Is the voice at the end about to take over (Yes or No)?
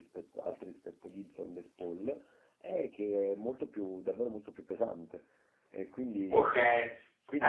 Yes